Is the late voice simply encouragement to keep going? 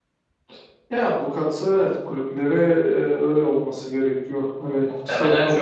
No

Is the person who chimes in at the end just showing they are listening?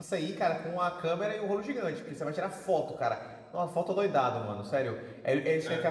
Yes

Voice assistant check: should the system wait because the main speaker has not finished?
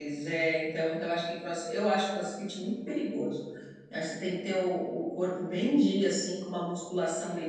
Yes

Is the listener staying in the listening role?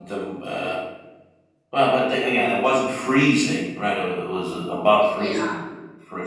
Yes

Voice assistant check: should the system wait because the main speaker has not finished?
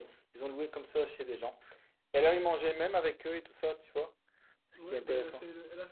No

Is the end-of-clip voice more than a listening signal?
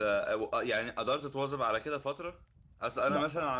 No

